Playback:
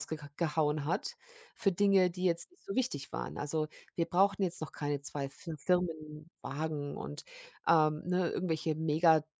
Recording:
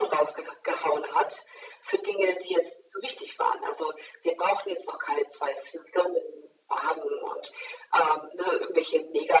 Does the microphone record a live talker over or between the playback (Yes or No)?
No